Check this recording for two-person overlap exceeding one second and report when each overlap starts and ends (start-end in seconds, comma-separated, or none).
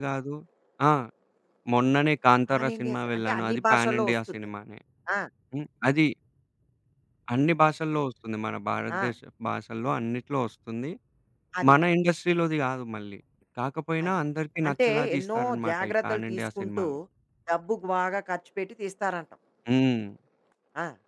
2.5-4.4, 14.7-16.8